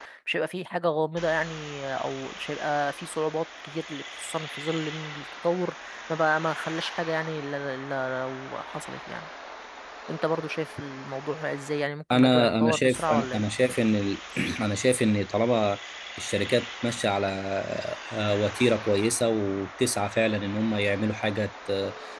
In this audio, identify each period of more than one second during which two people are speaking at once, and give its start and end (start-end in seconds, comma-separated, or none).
12.1-13.4